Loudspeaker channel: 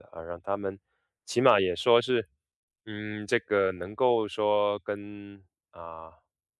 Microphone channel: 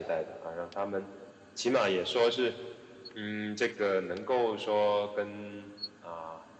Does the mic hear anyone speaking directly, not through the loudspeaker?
No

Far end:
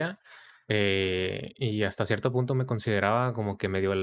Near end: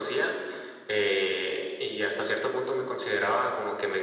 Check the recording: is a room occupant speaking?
No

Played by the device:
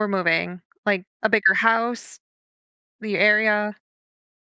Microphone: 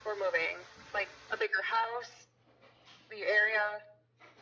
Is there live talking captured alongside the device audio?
No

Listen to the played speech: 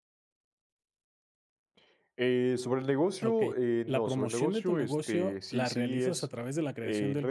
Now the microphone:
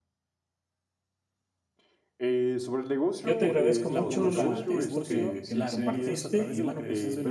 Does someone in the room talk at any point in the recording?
Yes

